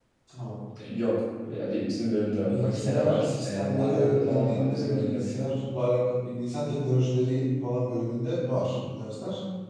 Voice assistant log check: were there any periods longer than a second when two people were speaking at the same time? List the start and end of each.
2.5-5.4

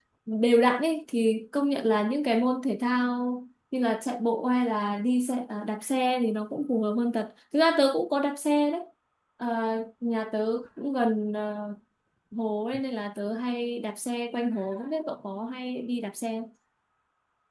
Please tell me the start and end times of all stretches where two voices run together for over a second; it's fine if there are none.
none

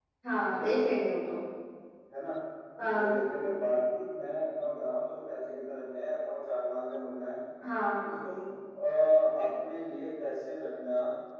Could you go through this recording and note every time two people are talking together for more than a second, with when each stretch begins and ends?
none

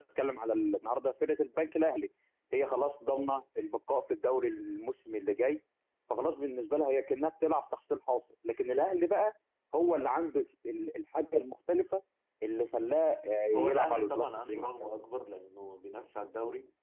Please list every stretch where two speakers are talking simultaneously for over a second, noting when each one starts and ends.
13.5-14.9

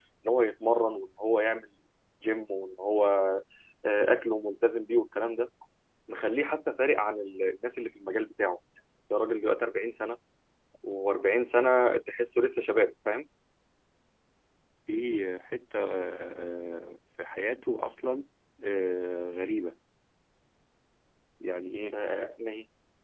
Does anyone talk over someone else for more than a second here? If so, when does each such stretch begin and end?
none

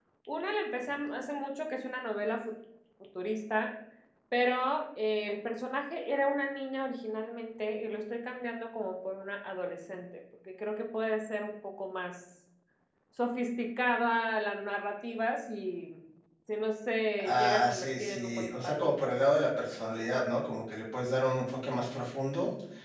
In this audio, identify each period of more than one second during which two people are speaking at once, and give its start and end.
17.2-19.0

